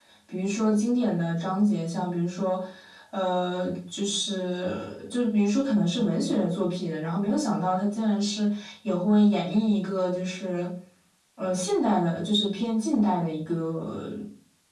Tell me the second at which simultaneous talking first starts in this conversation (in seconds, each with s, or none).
none